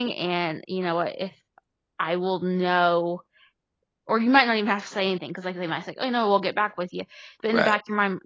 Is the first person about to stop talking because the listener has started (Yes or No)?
No